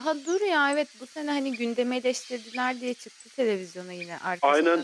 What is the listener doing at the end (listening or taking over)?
taking over